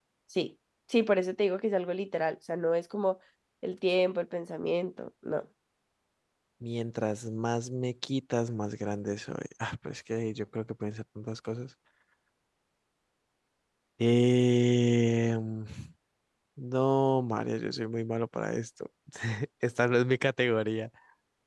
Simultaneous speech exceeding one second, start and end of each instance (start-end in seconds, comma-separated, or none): none